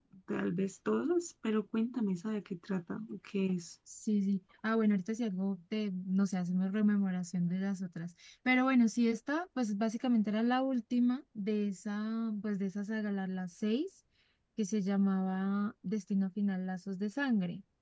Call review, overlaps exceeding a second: none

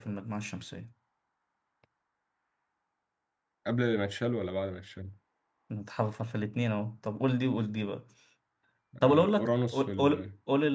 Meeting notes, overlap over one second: present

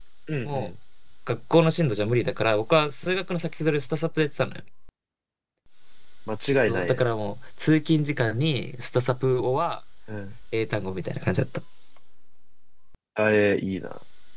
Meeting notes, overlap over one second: none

